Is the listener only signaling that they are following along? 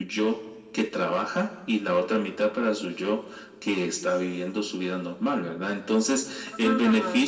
Yes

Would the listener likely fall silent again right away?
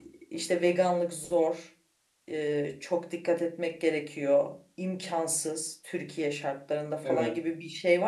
Yes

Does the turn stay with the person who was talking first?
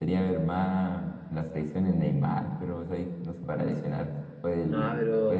Yes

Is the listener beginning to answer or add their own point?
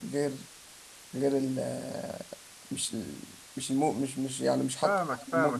Yes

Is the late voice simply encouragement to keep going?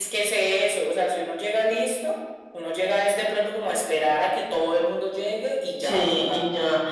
No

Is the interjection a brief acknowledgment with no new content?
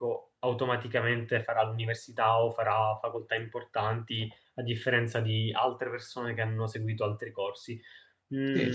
No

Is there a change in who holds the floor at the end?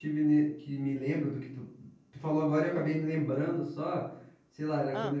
No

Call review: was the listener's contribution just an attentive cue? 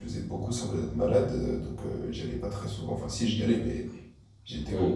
Yes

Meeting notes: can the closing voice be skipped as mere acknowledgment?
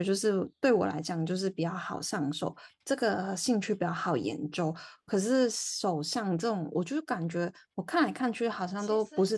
Yes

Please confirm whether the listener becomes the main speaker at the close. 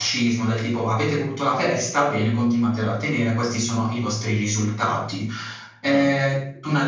No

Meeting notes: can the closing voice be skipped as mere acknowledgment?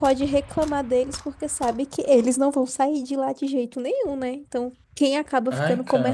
Yes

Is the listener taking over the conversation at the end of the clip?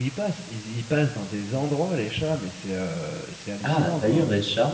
Yes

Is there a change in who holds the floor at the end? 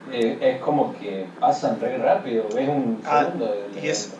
Yes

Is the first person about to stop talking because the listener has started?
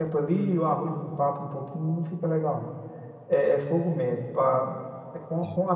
No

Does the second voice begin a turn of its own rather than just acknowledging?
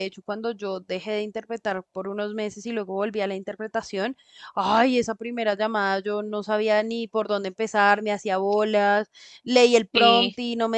No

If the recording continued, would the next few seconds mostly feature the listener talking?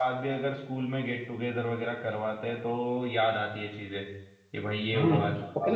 Yes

